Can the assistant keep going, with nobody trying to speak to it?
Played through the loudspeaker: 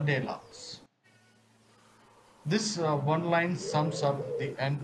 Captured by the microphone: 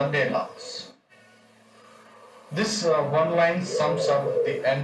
Yes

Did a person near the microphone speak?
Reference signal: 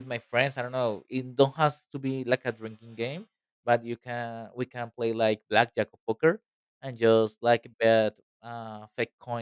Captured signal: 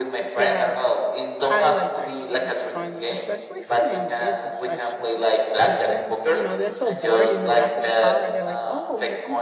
Yes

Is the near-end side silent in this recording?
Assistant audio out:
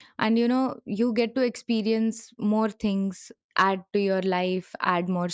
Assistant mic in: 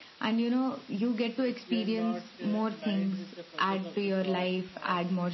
No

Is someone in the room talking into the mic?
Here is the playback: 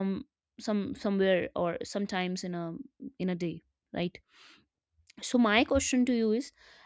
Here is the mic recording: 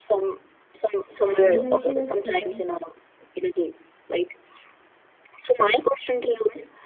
Yes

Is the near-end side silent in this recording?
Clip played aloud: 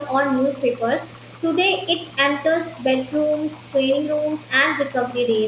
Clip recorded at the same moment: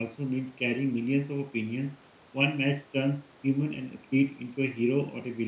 No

